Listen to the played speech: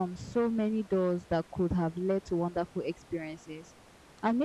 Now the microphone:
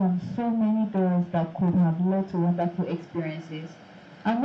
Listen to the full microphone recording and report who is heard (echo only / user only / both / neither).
echo only